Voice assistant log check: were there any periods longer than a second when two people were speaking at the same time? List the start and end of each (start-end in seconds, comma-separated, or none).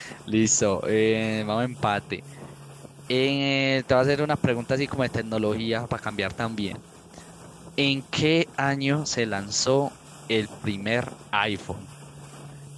none